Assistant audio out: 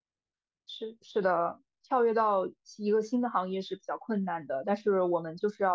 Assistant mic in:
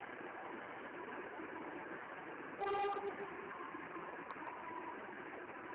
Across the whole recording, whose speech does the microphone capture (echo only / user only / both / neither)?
neither